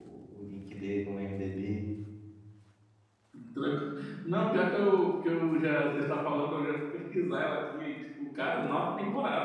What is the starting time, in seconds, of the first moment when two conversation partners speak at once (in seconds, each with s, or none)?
none